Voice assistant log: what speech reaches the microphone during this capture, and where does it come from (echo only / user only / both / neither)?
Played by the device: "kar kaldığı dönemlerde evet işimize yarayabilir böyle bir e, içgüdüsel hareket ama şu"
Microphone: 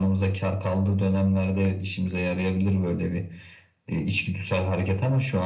echo only